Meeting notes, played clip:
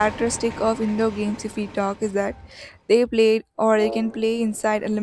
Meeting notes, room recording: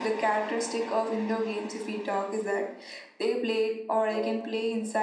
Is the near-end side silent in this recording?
Yes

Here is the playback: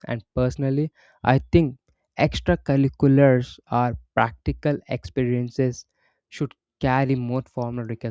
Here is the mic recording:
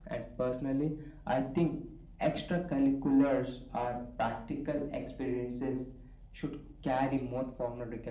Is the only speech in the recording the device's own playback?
Yes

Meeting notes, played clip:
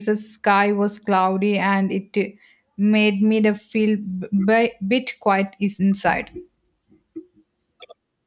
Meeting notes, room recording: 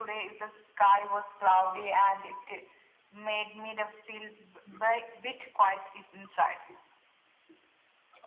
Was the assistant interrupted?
No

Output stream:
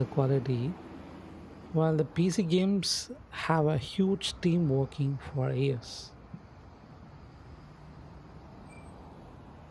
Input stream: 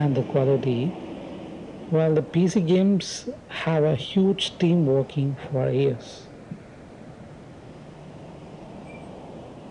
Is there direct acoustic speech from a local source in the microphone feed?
No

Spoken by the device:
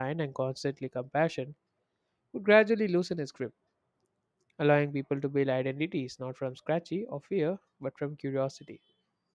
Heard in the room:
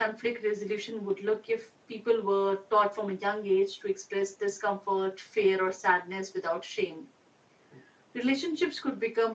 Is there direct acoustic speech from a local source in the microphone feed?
Yes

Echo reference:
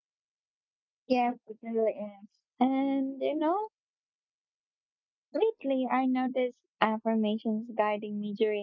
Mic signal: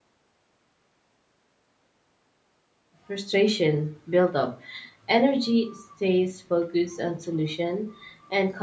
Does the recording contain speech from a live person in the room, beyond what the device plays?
Yes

